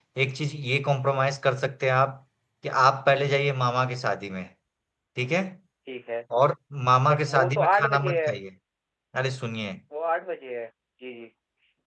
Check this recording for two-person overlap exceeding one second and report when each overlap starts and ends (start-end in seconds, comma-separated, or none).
7.1-8.3